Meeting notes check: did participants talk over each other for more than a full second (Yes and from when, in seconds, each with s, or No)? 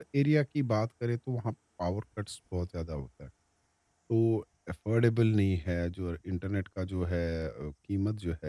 No